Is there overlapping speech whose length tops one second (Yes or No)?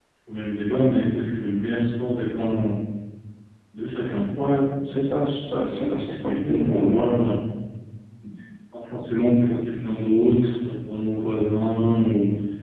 Yes